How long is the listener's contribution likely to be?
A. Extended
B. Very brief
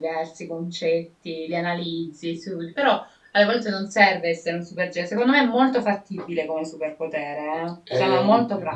A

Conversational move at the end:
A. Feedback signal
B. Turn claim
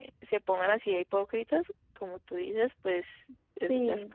B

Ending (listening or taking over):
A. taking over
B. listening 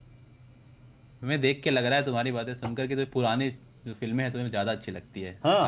A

